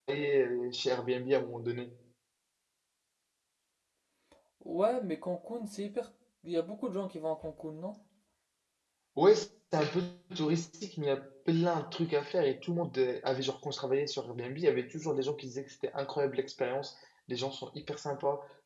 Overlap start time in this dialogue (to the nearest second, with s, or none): none